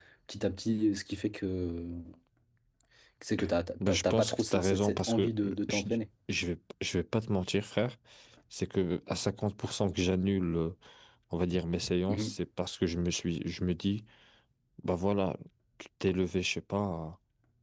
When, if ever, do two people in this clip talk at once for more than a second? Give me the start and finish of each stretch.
3.9-5.8

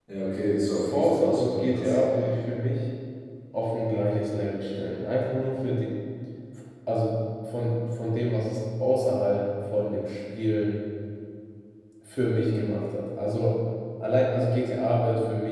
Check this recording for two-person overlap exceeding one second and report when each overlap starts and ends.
0.7-1.9

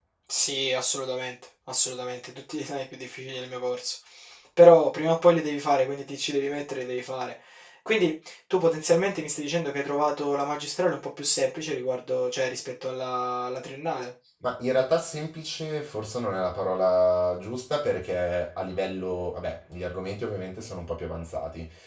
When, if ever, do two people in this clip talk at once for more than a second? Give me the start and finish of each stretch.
none

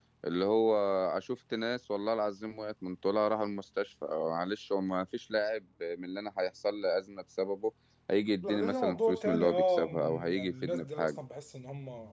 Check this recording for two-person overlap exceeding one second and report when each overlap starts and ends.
8.4-11.2

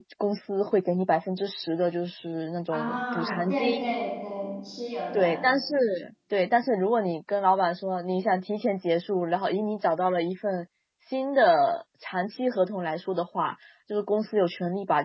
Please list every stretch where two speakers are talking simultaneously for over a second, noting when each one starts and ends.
2.7-4.0

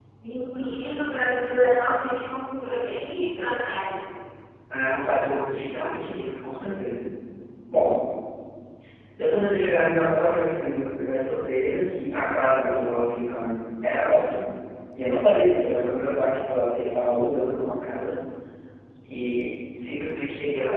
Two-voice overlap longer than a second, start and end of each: none

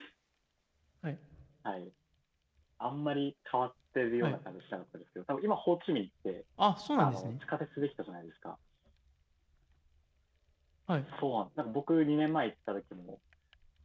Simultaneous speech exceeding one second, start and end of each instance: none

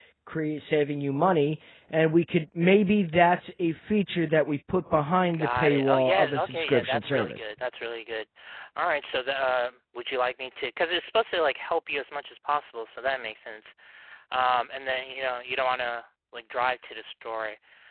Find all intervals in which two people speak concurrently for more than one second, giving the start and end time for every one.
5.3-7.4

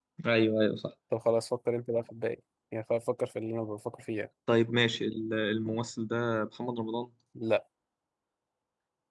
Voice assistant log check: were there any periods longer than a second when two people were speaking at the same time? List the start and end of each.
none

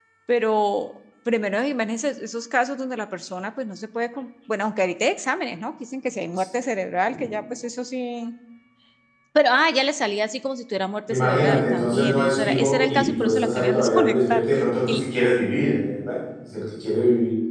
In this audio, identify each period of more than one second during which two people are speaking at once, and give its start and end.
11.1-14.4

